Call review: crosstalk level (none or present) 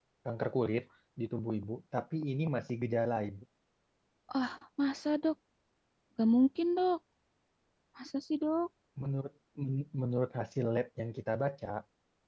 none